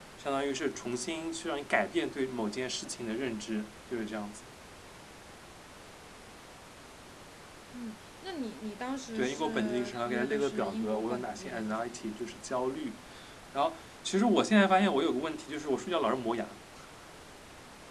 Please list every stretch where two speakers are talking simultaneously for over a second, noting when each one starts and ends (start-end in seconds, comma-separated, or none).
9.2-12.1